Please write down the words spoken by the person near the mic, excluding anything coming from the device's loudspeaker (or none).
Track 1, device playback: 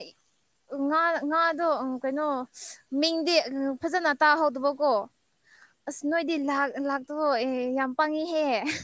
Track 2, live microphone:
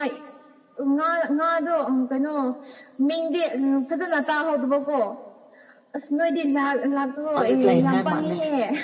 ꯍꯧꯖꯤꯛ ꯂꯩꯅꯉꯥꯏ ꯃꯥꯜꯂꯦ